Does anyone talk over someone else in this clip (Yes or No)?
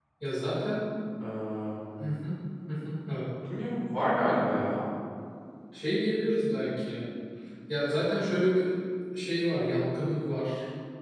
No